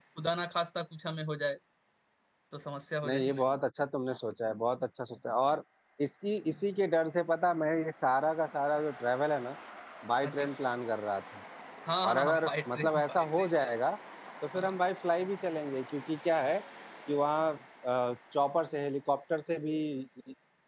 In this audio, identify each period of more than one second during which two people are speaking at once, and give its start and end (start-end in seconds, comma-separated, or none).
12.0-13.7